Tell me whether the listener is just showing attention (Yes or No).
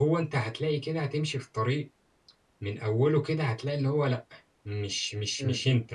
Yes